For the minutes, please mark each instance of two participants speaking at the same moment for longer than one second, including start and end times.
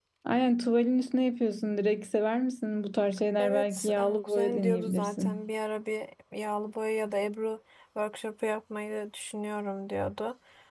3.4-5.4

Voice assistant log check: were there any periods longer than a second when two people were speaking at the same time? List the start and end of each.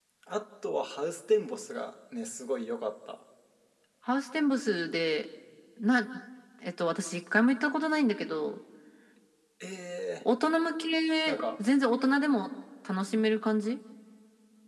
none

